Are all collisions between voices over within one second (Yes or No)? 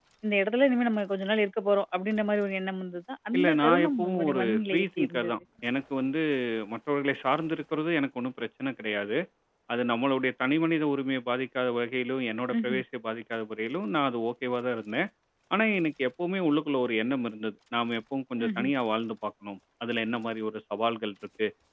No